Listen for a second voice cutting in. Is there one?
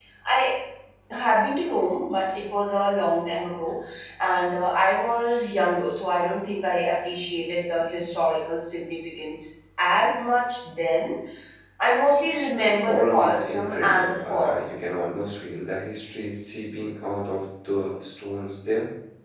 Yes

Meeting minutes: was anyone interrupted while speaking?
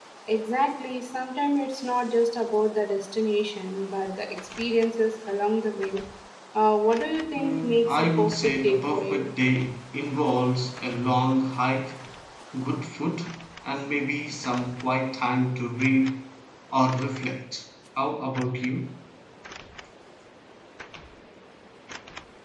Yes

